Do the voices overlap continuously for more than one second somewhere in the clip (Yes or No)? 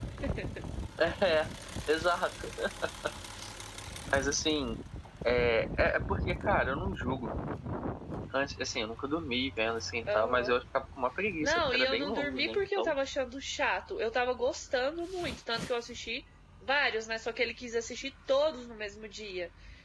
Yes